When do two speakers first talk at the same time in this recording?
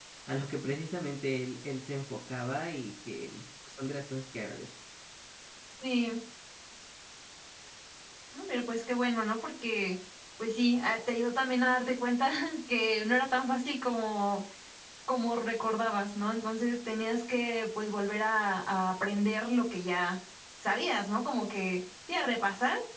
none

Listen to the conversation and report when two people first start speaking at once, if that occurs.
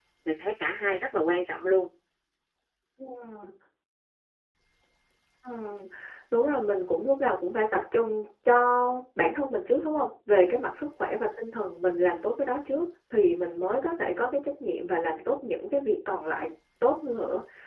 none

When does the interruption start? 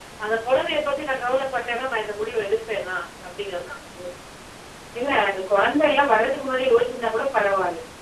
none

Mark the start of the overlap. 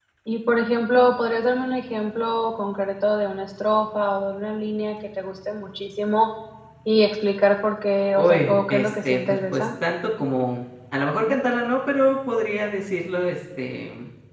8 s

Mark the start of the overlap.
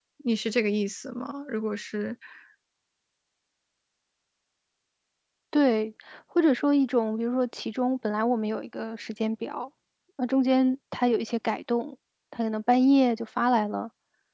none

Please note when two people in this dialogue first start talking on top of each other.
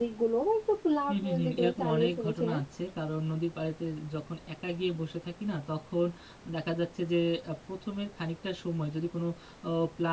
1 s

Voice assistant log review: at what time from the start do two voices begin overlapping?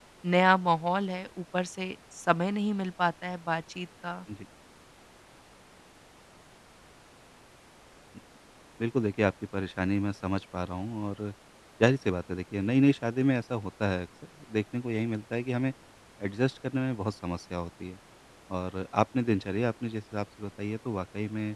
none

